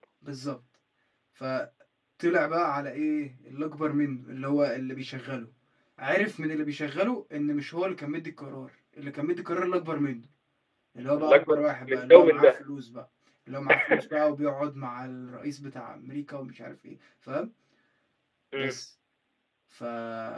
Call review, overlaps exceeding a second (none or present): present